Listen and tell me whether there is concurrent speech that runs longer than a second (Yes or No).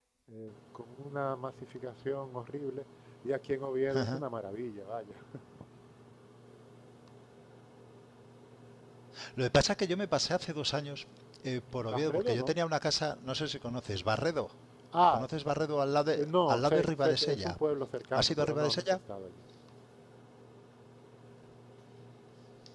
Yes